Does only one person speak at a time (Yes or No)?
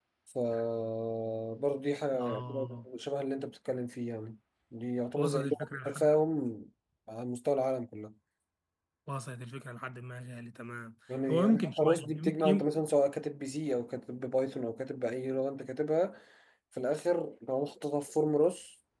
No